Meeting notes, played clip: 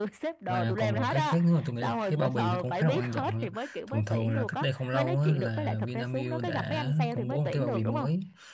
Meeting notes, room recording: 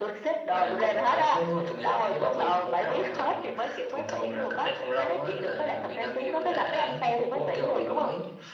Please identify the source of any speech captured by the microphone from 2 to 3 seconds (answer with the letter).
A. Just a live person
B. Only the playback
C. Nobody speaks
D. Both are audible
B